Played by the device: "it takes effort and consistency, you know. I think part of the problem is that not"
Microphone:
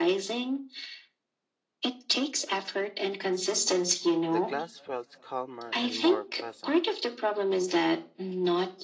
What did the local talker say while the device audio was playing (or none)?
the class felt calmer and more pleasant.